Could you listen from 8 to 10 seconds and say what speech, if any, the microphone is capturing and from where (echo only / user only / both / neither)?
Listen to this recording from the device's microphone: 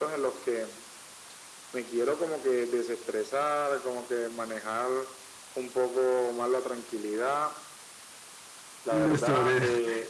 both